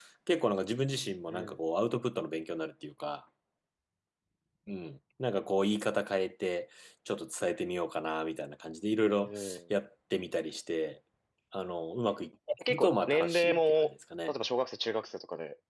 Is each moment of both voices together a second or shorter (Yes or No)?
No